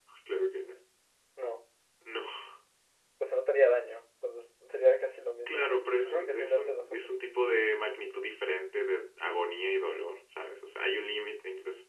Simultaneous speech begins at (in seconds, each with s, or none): 5.4 s